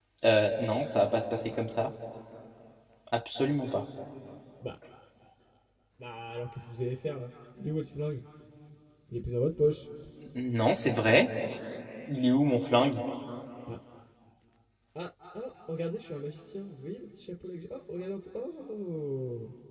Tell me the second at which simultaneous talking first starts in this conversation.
none

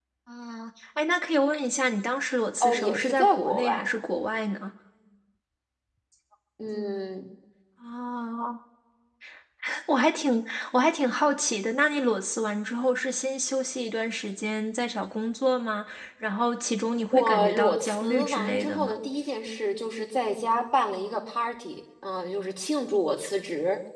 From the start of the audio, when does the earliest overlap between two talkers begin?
3 s

